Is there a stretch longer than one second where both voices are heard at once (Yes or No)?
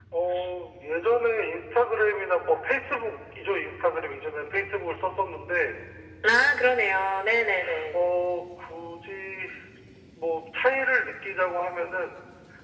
No